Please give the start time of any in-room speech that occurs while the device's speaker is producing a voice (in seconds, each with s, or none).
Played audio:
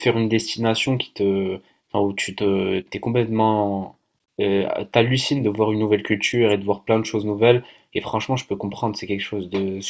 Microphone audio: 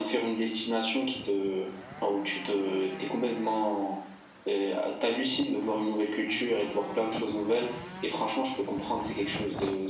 none